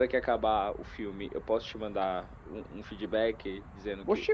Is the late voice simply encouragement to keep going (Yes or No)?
No